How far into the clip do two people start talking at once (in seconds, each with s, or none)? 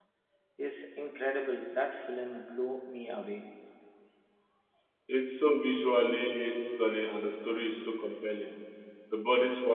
none